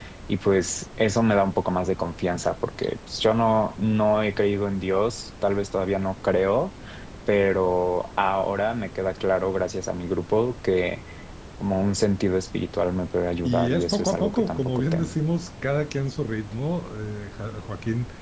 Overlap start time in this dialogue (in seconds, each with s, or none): 13.4 s